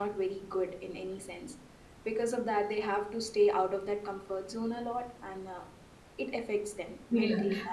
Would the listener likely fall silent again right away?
No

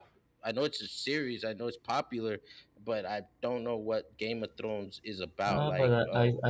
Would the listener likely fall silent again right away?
No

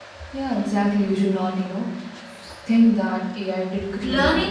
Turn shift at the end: Yes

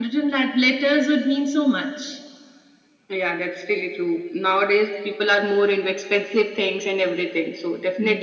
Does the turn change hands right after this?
No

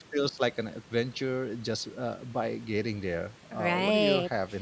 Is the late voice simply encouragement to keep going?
No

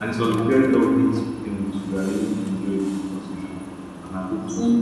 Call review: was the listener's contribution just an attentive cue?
Yes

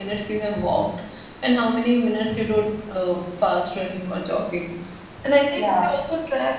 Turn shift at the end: No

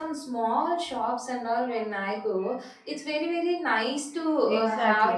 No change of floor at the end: No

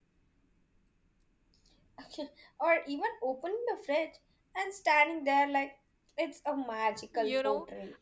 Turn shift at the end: Yes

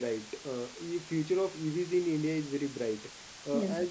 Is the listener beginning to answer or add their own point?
No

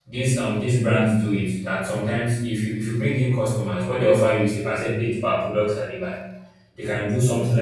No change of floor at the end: Yes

